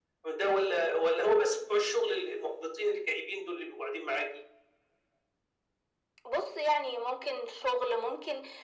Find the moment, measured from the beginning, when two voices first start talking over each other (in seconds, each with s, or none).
none